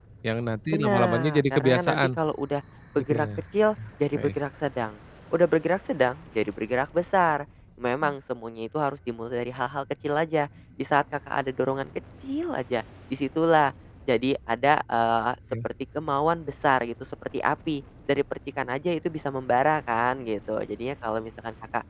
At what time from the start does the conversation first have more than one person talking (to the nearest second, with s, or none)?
1 s